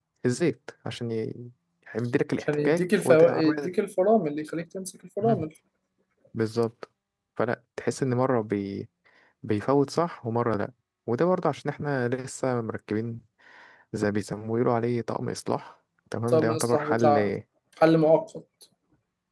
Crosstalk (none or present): present